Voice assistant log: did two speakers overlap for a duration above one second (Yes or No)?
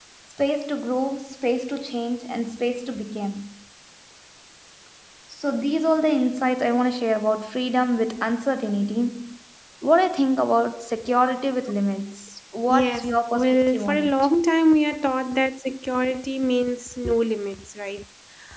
Yes